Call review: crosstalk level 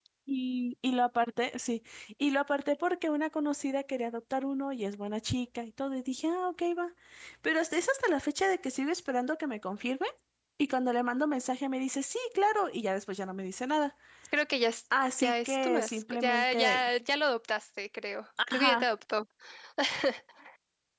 present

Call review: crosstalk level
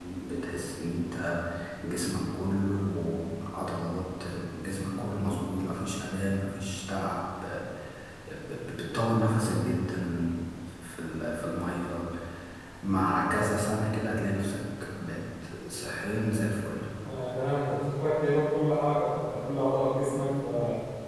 none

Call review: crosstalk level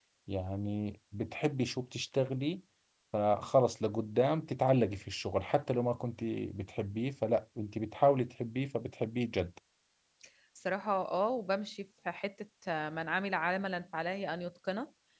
none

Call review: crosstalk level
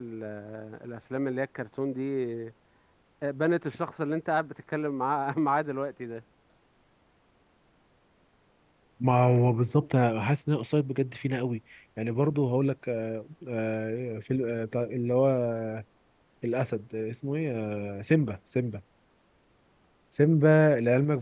none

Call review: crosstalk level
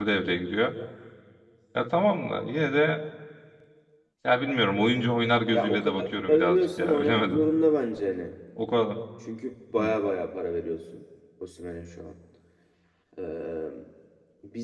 present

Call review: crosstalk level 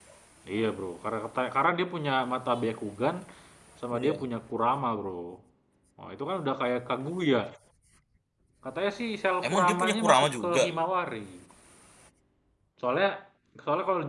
present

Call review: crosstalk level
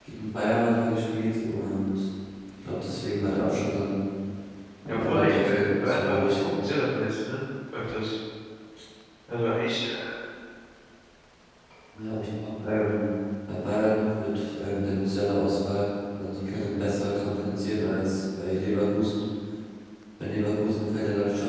present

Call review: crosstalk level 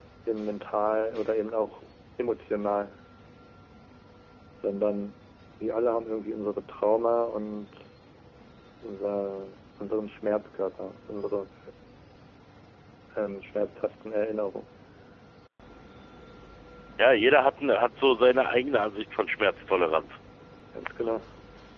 none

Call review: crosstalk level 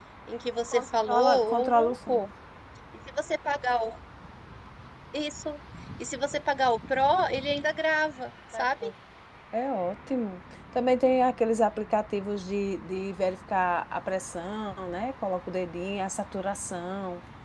present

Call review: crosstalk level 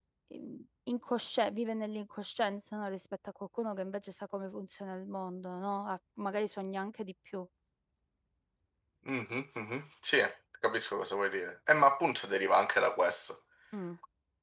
none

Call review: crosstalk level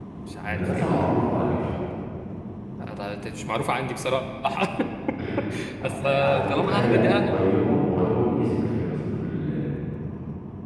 present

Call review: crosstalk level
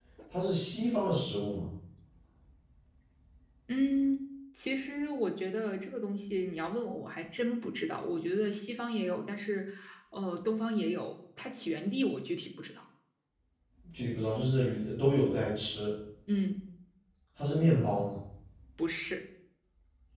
none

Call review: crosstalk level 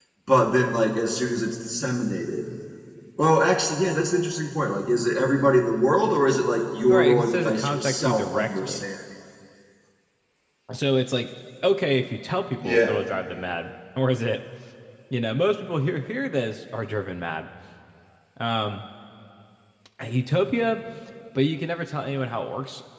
present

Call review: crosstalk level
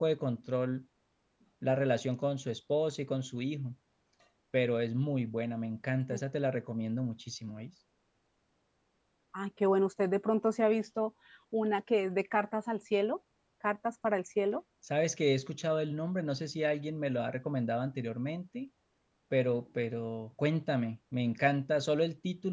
none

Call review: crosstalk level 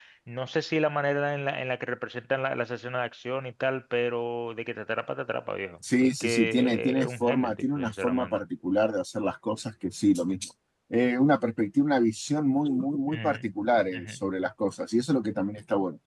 present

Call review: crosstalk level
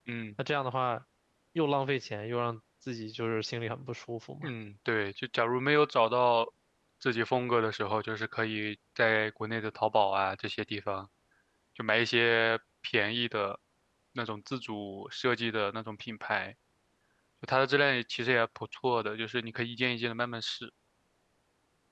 none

